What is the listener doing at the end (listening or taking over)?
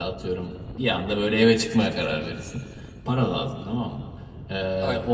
listening